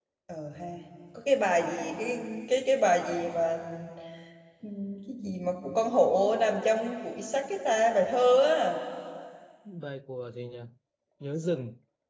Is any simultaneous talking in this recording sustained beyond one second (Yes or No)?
No